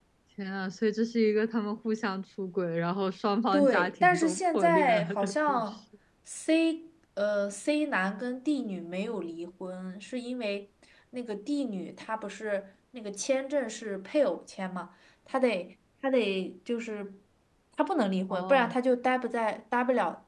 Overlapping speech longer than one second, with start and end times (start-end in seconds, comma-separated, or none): 3.5-5.7